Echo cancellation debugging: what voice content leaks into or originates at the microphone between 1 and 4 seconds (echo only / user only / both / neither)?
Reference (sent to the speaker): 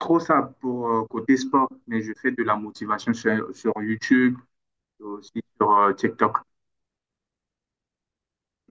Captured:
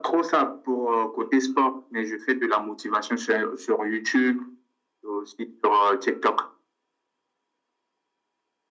echo only